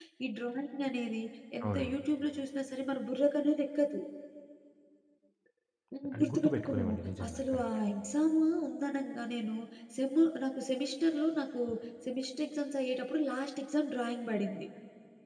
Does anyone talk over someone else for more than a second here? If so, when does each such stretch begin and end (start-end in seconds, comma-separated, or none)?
6.1-7.6